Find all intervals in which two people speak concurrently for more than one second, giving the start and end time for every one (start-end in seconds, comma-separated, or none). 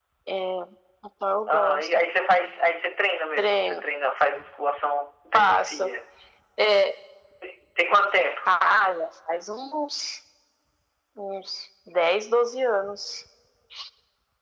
none